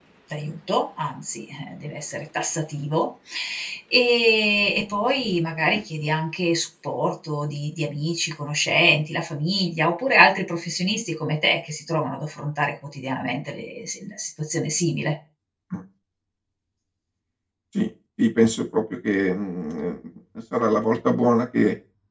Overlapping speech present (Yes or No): No